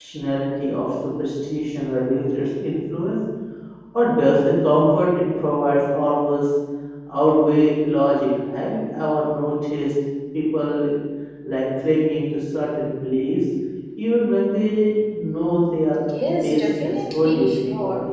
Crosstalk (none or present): present